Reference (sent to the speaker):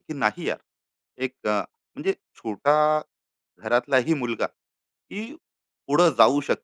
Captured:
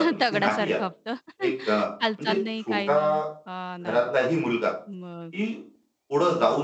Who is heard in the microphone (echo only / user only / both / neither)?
both